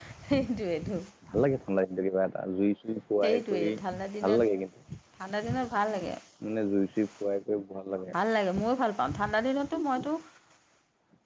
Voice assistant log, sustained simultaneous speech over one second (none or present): none